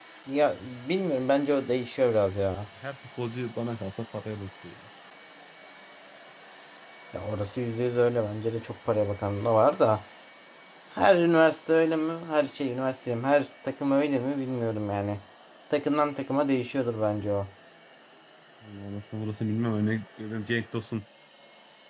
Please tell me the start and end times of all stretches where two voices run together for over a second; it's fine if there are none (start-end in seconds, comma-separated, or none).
none